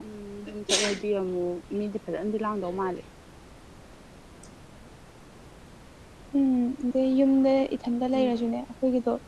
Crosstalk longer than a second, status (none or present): none